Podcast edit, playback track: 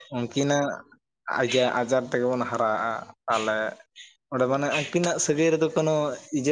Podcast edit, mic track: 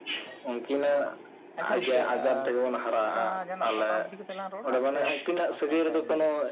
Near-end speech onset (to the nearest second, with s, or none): 2 s